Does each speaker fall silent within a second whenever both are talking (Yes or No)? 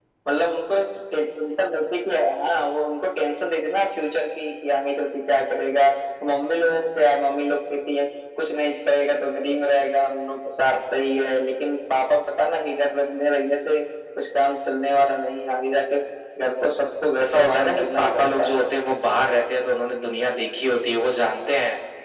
No